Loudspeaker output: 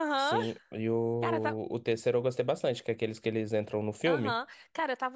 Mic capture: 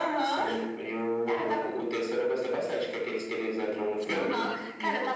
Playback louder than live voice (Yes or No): Yes